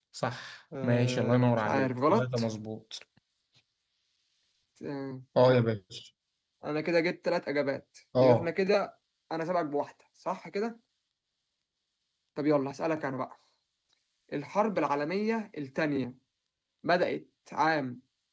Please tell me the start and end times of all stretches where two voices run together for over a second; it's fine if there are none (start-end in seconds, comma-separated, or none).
0.8-2.4